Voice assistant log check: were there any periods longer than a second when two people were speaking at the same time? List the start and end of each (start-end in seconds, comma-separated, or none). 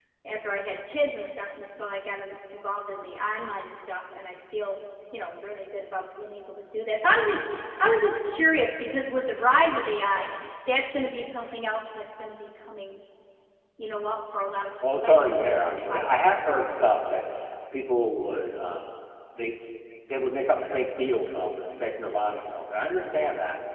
15.0-16.6